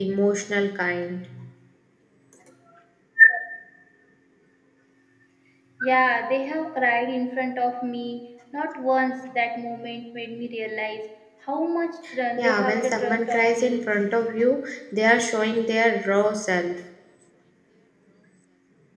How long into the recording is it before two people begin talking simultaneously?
12.4 s

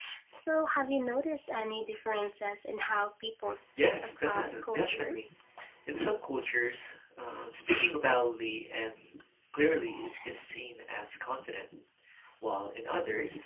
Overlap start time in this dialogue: 3.8 s

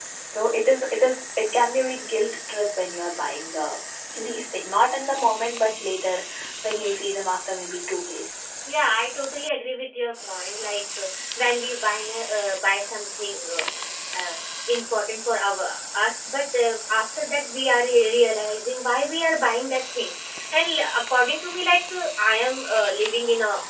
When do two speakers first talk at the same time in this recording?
none

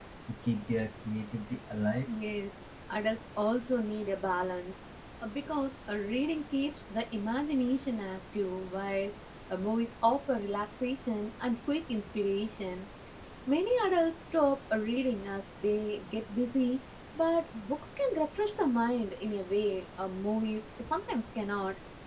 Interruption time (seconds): none

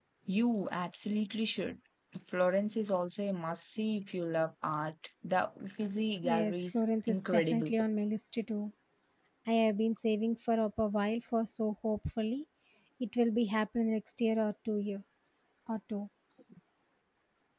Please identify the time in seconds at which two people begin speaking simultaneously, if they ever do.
6.2 s

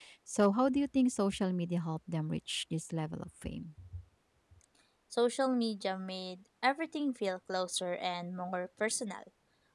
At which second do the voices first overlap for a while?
none

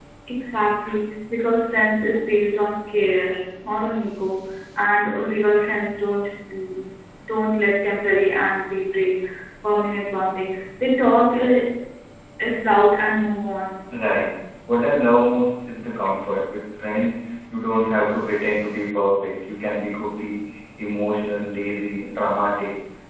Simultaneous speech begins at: none

